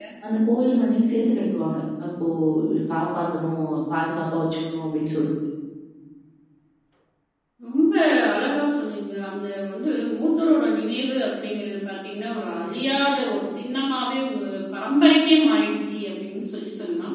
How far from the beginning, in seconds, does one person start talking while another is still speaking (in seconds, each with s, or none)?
none